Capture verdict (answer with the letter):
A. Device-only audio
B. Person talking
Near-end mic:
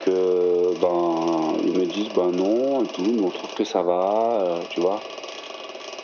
A